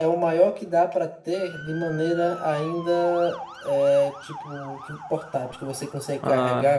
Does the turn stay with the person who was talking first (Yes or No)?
Yes